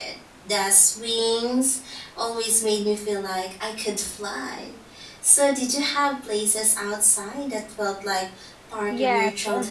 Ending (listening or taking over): taking over